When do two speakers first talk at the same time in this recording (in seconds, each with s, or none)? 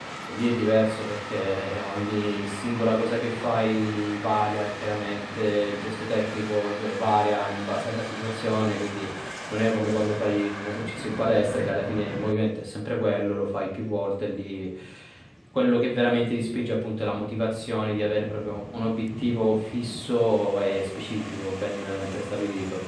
none